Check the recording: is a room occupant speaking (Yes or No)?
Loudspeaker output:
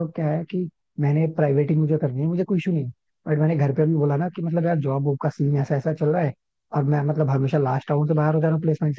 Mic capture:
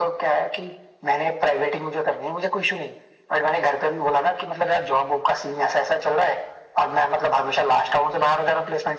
No